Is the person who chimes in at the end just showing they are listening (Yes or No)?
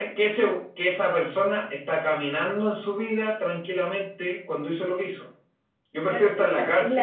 No